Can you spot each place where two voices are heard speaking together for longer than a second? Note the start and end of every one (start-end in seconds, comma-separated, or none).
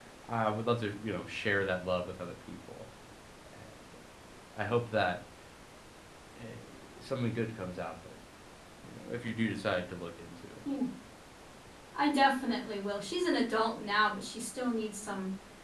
none